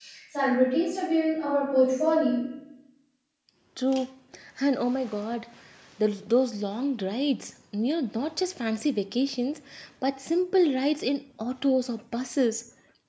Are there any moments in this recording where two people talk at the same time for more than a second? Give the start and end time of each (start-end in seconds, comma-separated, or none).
none